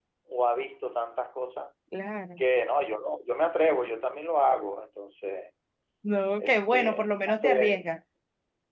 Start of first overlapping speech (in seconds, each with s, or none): 6.4 s